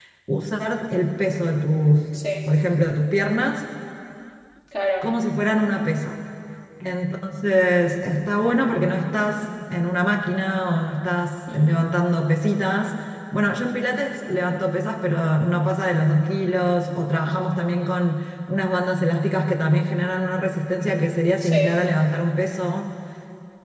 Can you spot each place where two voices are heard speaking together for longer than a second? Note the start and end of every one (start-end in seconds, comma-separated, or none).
none